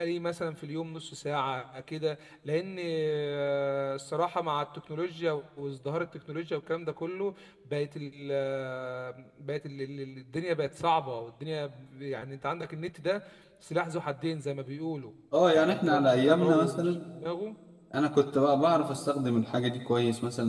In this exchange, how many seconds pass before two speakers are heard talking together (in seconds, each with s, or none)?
15.5 s